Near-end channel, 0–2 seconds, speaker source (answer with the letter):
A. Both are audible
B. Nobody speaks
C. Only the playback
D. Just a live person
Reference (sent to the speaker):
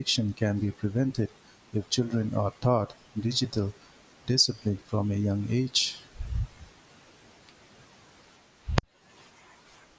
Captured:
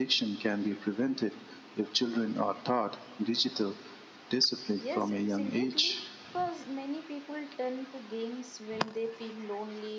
C